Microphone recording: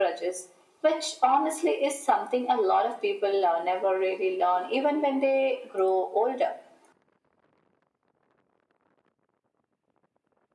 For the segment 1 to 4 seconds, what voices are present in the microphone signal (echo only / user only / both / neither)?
echo only